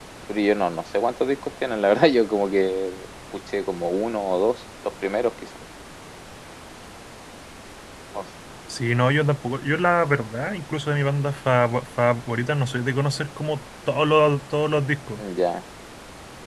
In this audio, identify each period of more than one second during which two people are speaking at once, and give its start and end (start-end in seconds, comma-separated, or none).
none